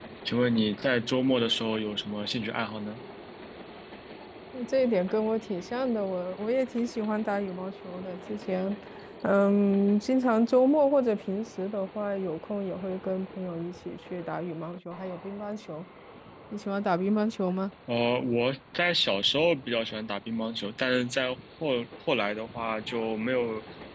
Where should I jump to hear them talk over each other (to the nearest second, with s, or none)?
none